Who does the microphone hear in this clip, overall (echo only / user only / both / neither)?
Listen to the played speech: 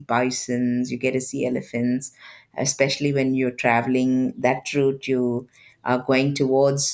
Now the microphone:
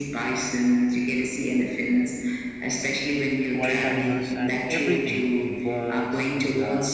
both